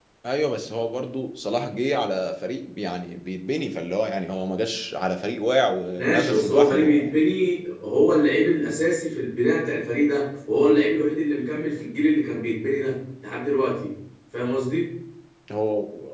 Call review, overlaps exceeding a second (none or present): present